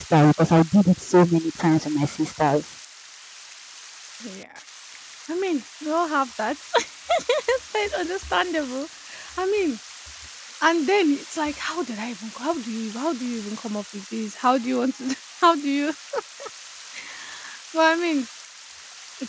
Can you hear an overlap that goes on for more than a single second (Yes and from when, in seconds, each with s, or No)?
No